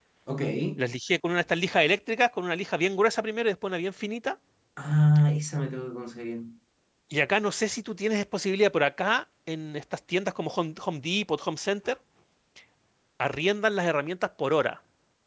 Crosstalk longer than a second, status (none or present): none